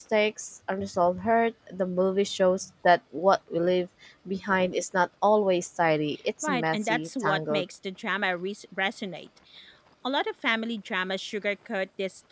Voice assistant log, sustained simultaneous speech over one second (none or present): present